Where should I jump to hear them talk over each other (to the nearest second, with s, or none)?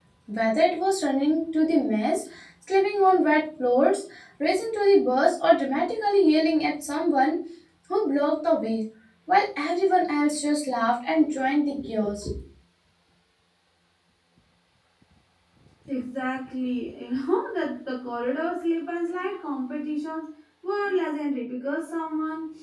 none